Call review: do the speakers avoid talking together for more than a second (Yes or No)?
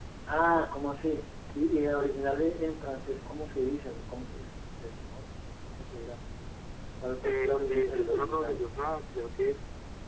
No